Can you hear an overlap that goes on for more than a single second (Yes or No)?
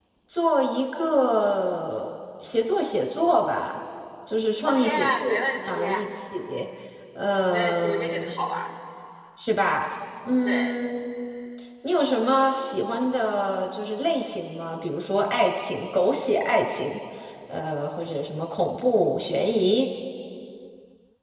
Yes